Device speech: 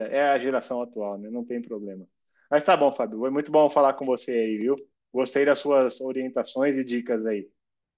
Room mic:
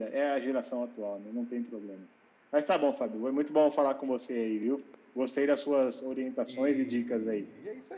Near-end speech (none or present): present